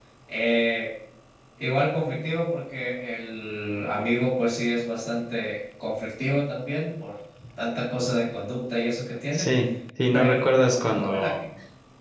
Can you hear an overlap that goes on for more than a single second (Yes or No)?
Yes